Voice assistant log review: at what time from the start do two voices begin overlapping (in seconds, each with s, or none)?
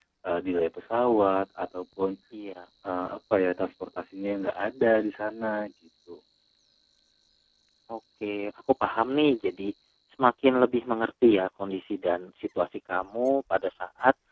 none